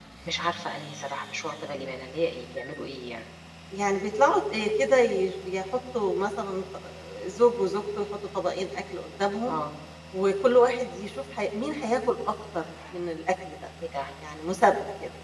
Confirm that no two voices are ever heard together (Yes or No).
Yes